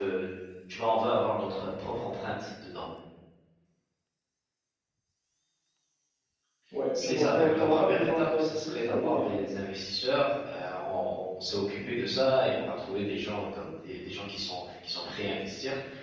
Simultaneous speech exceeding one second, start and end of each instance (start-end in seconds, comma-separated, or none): 7.0-9.4